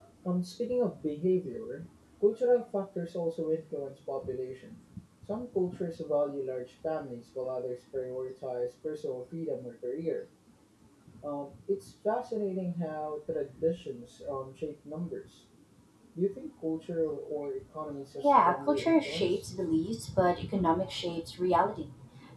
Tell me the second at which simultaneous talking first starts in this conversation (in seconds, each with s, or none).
18.2 s